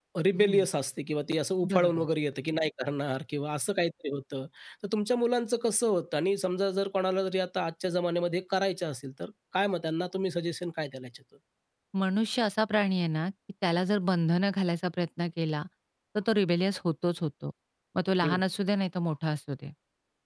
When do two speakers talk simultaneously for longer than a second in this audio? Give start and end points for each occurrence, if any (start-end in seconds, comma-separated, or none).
none